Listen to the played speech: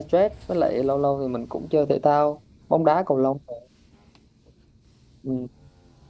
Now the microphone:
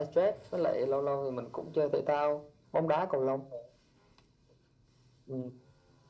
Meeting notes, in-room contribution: none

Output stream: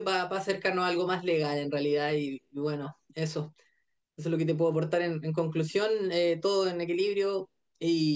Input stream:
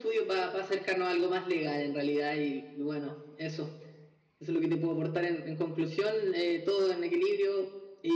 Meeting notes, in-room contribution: none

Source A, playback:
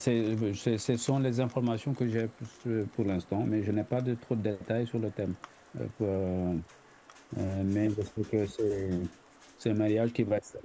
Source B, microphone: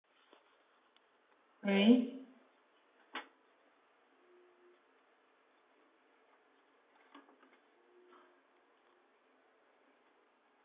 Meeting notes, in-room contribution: present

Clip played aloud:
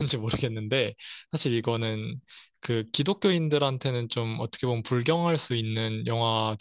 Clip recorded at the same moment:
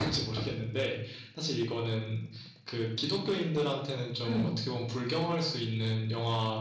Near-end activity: present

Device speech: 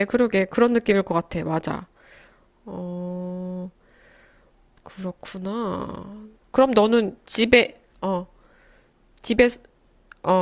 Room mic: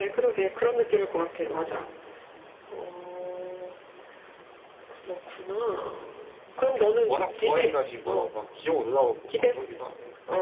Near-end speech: present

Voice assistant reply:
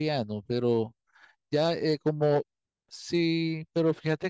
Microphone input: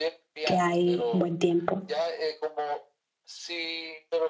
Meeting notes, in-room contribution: present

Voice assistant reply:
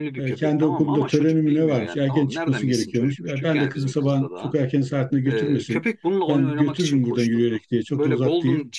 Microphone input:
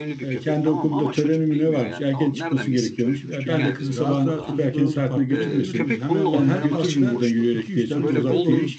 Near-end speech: present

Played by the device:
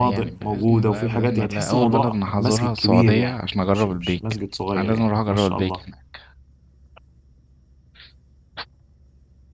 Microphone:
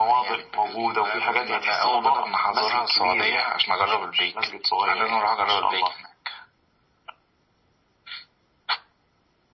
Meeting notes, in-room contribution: none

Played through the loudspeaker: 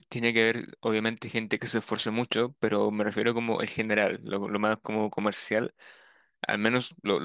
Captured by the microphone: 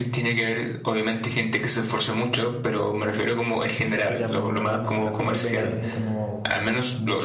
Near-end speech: present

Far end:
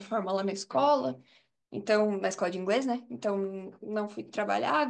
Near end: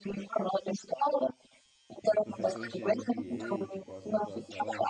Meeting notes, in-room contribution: present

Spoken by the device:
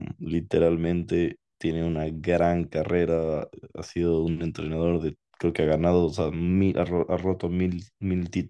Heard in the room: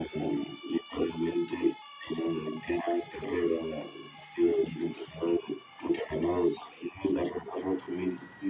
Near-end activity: none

